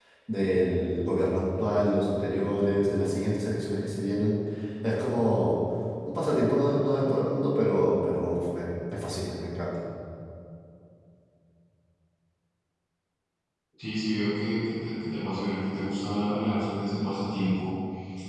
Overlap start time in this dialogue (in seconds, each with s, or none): none